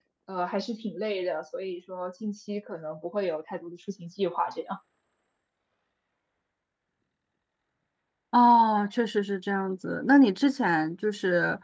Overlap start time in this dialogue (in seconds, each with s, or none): none